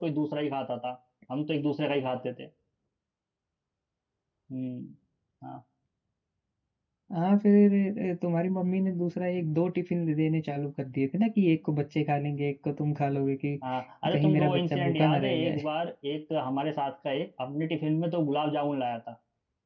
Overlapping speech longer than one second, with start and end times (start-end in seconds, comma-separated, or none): 14.1-15.6